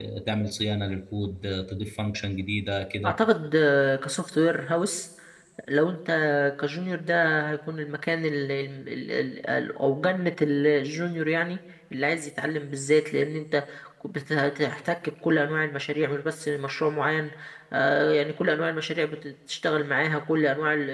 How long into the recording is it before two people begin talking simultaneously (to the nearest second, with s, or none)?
none